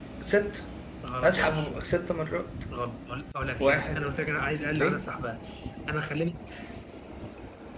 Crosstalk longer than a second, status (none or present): none